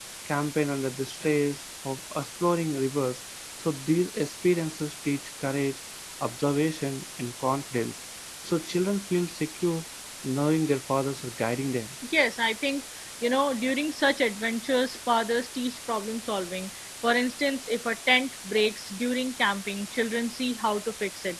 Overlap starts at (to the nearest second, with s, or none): none